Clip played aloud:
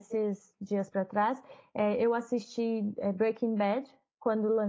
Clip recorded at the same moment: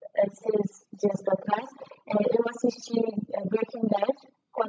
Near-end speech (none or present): none